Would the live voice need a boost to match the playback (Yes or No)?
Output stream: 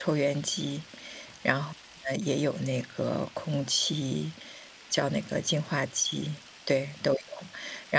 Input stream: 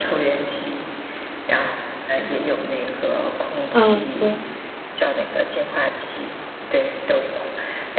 No